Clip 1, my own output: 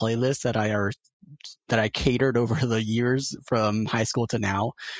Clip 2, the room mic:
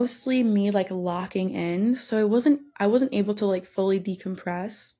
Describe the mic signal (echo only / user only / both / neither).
user only